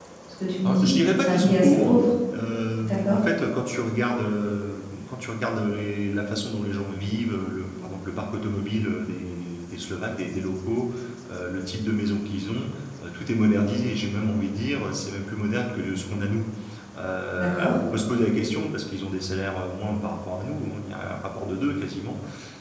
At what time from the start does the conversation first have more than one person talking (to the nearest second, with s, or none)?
1 s